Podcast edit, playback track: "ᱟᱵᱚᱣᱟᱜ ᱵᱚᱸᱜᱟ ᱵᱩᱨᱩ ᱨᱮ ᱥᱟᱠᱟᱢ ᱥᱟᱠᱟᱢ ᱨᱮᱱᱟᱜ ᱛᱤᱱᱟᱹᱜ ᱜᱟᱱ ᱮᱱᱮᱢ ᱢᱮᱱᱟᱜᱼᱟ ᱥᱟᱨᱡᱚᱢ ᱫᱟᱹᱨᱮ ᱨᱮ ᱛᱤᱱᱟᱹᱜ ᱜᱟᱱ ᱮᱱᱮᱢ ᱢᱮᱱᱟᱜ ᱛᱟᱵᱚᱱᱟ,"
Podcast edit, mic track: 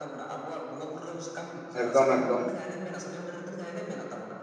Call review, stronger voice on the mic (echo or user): user